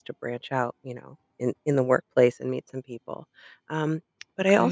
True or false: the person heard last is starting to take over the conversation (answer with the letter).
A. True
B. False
B